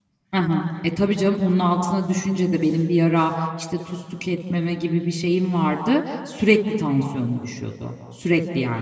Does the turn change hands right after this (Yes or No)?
Yes